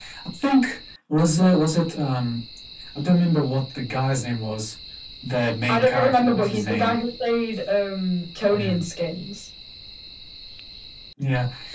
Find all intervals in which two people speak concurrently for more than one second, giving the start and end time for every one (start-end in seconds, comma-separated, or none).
5.7-6.9